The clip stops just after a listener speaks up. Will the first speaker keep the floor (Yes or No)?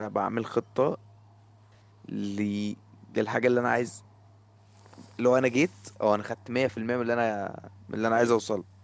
No